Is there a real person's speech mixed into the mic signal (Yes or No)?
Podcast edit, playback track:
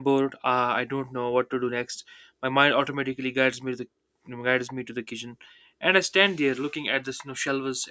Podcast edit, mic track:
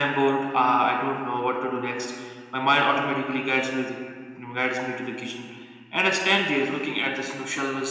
No